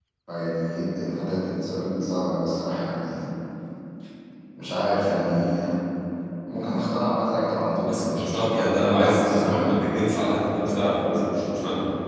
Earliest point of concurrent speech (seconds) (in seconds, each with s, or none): 7.9 s